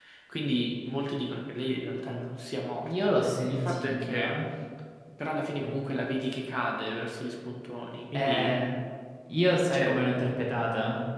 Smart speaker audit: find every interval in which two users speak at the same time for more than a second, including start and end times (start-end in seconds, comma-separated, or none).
3.0-4.2